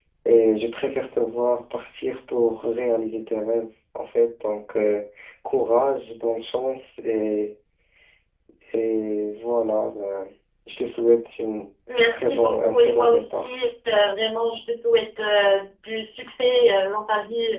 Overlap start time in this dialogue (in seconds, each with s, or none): 12.1 s